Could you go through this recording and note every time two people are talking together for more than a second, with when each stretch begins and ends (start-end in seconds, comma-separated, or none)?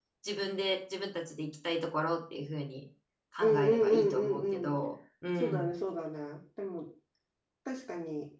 3.4-4.7